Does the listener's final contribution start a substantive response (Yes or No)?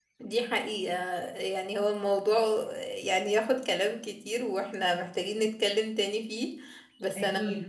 No